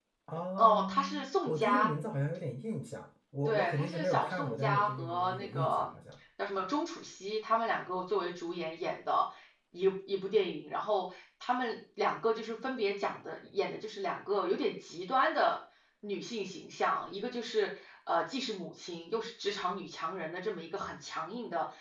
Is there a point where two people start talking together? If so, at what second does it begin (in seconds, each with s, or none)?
0.6 s